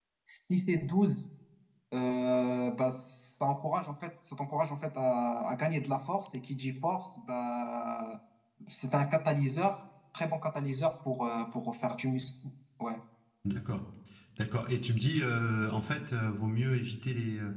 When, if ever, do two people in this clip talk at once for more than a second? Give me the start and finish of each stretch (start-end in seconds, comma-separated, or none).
none